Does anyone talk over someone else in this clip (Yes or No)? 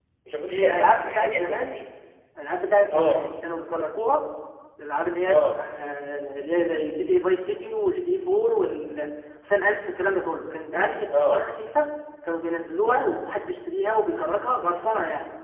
Yes